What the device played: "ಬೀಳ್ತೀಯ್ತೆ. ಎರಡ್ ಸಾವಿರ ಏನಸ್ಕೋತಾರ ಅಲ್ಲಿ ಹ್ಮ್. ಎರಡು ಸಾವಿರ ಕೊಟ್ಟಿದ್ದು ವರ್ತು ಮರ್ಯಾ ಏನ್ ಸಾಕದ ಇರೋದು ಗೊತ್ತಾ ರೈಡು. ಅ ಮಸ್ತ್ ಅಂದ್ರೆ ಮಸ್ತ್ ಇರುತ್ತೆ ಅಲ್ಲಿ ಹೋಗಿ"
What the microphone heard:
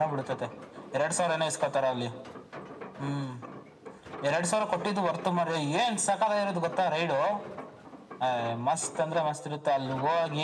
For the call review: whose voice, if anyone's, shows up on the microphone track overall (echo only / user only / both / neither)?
echo only